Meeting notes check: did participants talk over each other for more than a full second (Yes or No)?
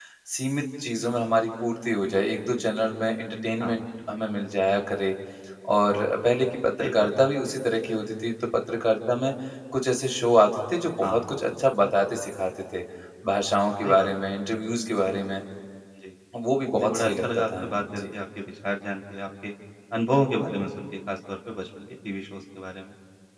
Yes